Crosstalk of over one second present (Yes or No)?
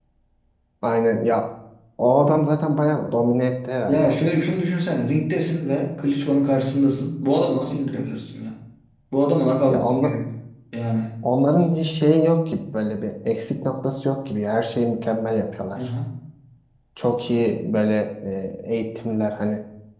No